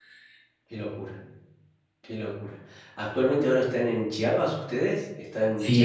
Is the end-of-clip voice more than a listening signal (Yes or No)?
Yes